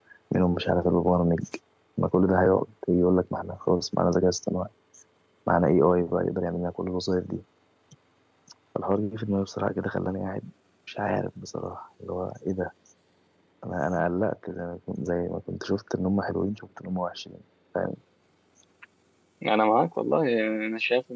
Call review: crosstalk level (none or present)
none